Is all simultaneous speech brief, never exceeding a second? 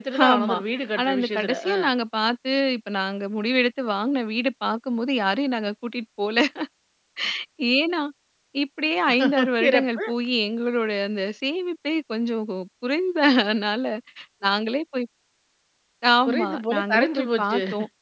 No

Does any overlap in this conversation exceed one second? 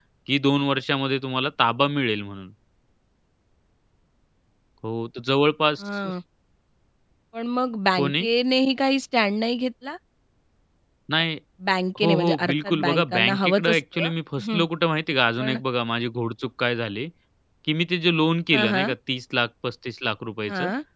Yes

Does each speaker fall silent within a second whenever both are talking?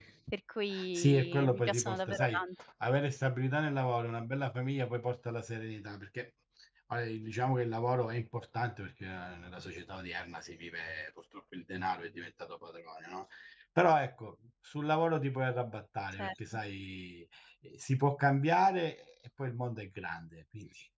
No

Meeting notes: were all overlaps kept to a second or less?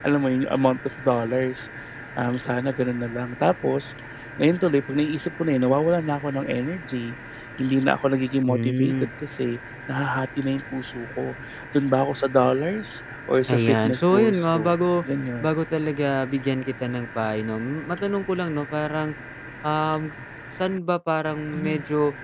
No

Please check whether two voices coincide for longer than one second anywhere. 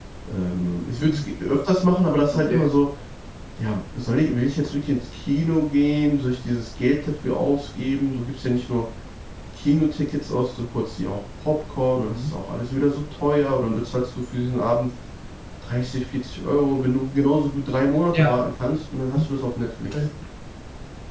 No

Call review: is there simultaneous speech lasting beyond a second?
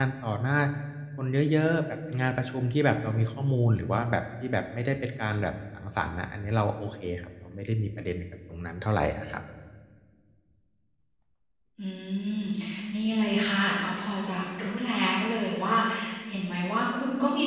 No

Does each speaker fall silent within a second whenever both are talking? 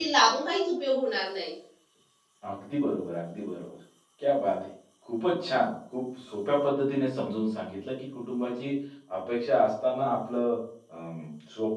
Yes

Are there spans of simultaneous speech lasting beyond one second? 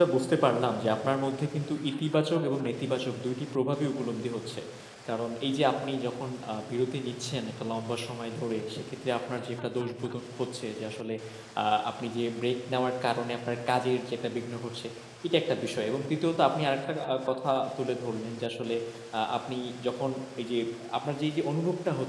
No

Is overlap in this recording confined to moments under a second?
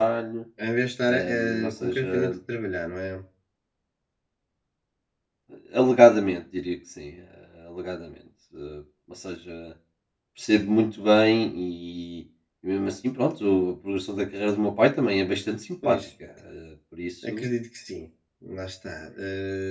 No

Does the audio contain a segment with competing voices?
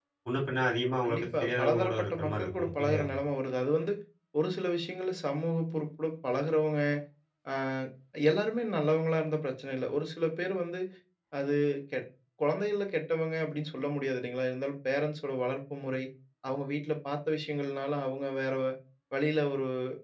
Yes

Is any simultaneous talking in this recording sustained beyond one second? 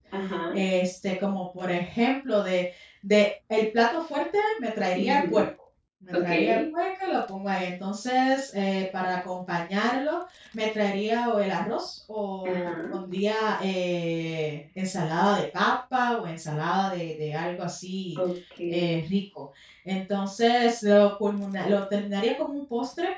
No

